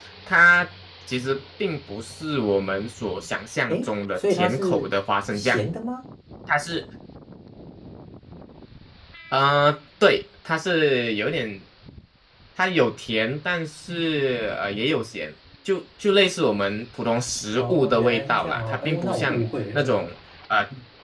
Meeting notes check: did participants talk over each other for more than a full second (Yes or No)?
Yes